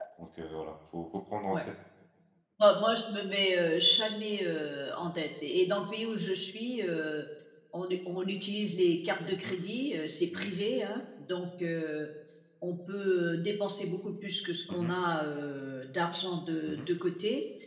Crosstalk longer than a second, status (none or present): none